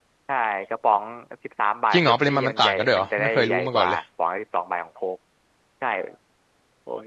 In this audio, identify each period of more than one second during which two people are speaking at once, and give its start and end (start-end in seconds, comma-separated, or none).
1.9-4.0